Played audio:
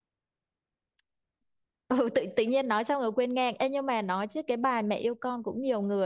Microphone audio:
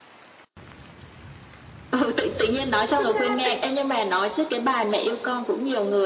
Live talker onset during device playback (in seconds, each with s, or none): 3.0 s